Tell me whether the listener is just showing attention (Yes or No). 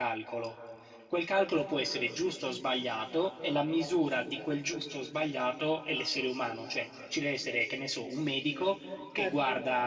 Yes